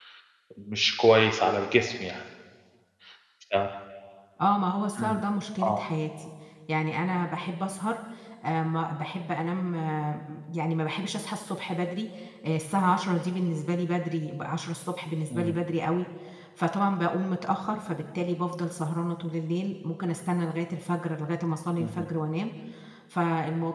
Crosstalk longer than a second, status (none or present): none